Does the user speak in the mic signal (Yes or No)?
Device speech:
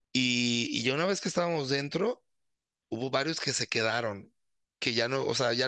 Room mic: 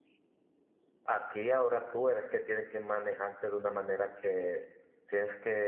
Yes